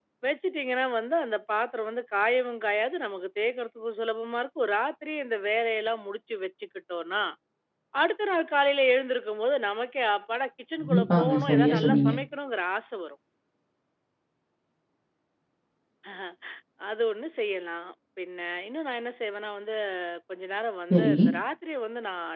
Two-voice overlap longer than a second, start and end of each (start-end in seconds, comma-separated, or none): 10.8-12.1